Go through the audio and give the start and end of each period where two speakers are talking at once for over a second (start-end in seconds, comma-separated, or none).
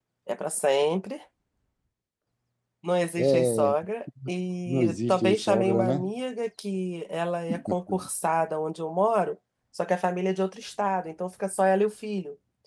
4.7-6.1